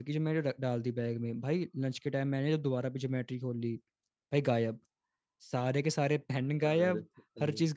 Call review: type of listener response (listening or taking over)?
listening